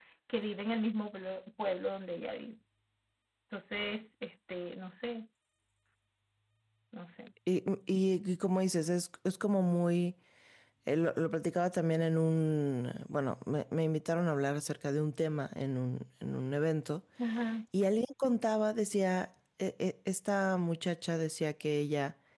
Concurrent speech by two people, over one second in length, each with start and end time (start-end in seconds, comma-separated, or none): none